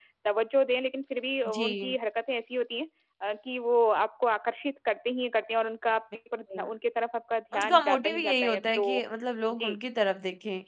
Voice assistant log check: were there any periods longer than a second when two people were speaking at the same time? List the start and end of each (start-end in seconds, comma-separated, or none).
7.6-9.0